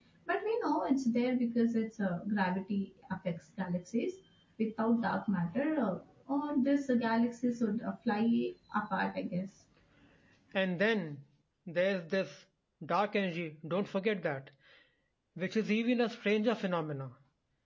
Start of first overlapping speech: none

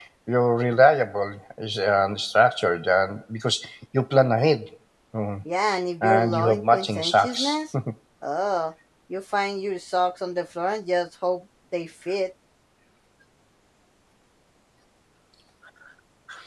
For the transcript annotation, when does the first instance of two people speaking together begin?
6.0 s

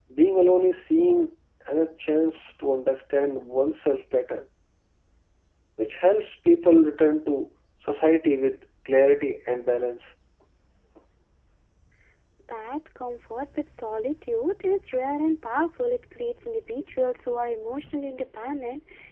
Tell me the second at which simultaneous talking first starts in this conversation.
none

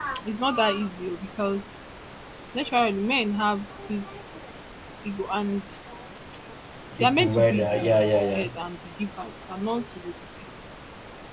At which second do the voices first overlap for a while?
7.0 s

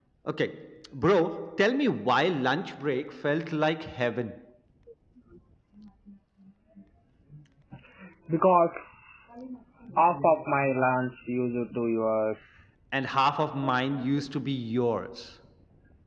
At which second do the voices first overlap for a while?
none

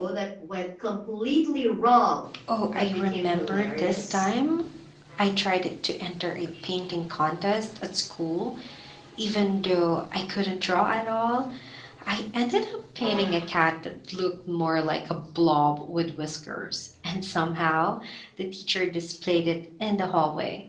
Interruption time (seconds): 2.7 s

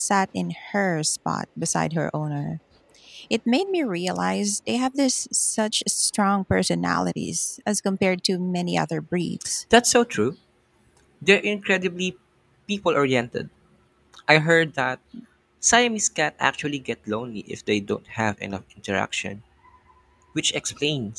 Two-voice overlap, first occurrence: none

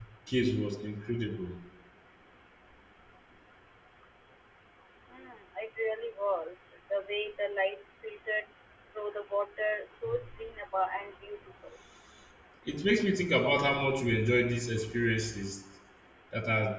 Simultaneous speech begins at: none

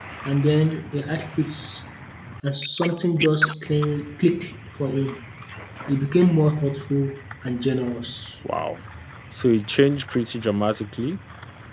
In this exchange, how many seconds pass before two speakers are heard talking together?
none

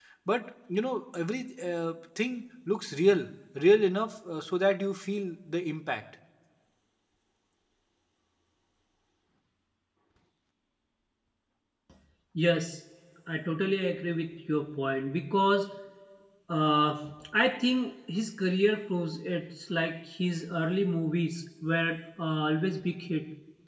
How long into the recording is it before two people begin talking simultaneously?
none

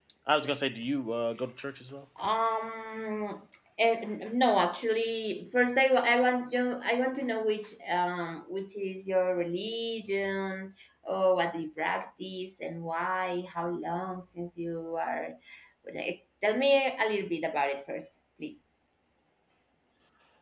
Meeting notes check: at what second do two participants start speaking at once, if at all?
none

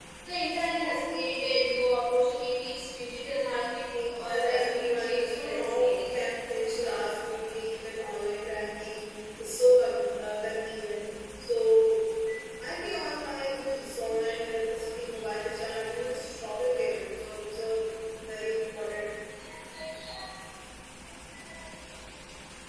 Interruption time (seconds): 4.2 s

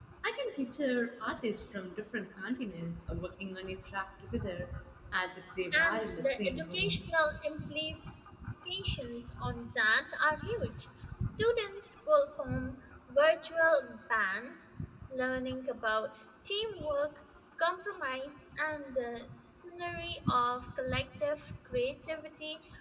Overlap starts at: 5.7 s

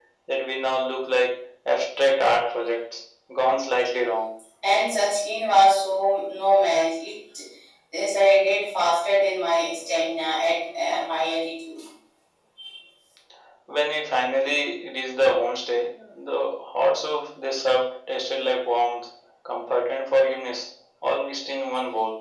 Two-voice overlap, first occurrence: none

